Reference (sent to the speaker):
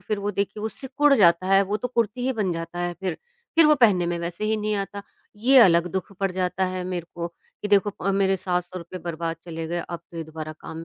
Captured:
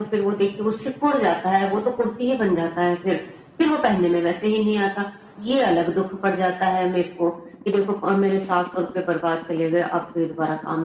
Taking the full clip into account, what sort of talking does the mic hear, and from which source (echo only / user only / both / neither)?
echo only